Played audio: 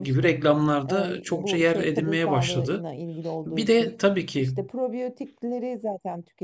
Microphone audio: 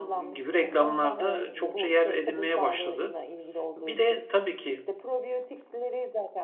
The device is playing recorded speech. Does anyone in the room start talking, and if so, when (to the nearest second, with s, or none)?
1 s